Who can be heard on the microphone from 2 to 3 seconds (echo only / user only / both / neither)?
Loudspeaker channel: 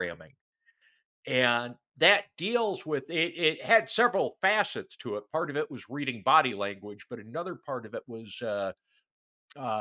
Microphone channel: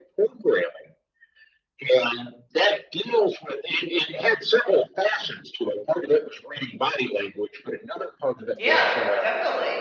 echo only